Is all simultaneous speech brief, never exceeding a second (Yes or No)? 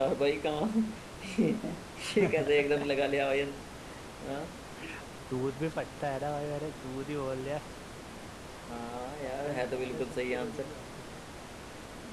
No